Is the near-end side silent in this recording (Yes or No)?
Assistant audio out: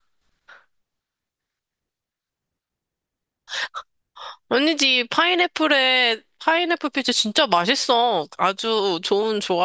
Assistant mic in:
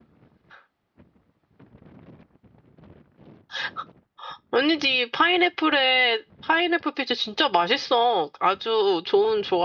Yes